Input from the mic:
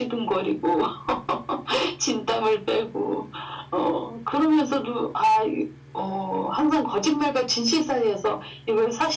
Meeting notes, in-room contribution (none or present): none